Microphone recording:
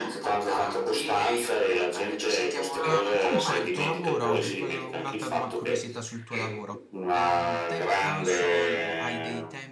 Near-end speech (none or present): present